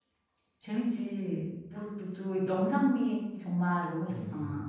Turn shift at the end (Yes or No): Yes